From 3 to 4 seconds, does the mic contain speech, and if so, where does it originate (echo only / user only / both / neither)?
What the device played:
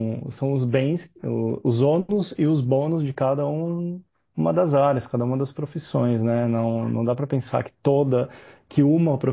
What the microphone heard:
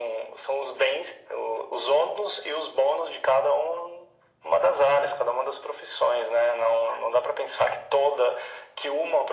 echo only